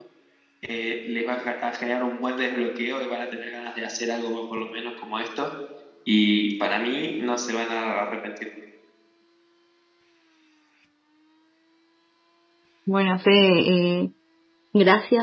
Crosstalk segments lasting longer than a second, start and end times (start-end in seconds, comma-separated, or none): none